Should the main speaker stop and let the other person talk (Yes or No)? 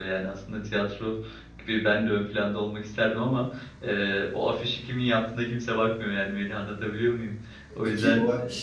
Yes